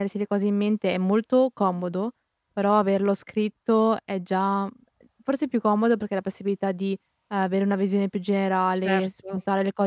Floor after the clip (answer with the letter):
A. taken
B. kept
B